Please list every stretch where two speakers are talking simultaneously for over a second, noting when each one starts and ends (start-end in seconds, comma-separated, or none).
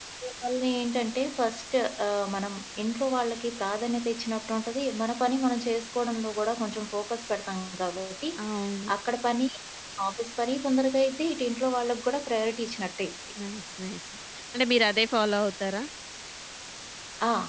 none